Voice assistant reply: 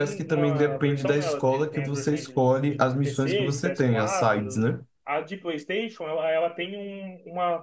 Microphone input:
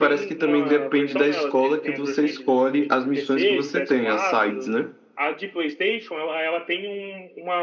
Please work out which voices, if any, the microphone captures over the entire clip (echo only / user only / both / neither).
echo only